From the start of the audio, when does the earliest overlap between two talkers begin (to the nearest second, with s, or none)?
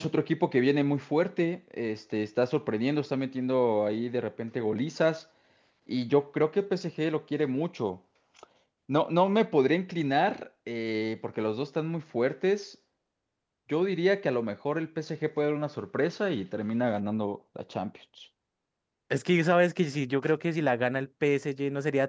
none